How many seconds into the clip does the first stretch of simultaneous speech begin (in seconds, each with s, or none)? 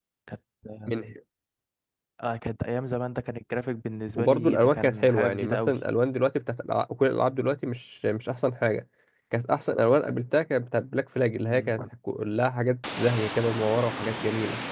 4.2 s